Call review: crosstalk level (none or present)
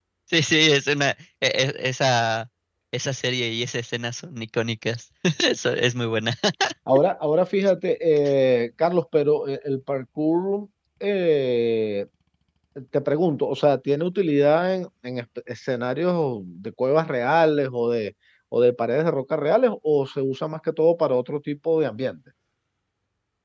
none